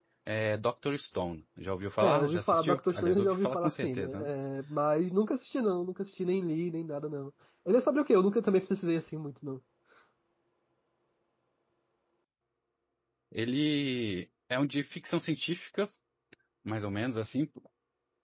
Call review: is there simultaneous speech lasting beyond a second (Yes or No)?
Yes